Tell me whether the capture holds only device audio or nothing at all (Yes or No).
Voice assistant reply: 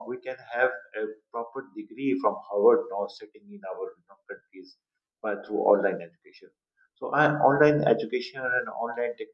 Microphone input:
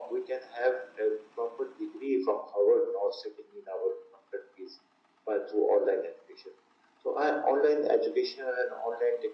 Yes